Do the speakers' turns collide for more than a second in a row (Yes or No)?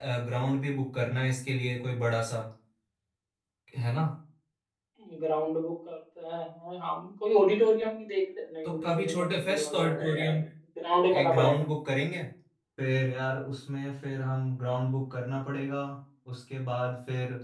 Yes